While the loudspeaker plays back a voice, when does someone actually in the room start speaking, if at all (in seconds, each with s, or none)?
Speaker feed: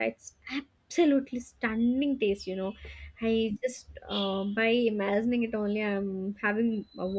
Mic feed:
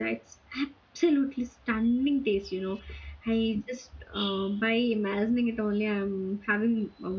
none